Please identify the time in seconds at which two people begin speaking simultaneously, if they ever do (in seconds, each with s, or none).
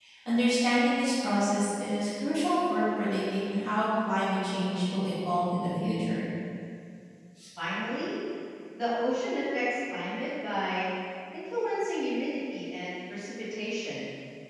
none